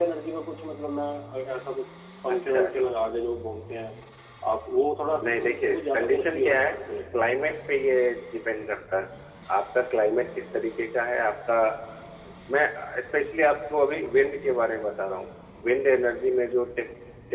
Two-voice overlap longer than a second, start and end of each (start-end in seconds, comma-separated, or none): 5.2-6.7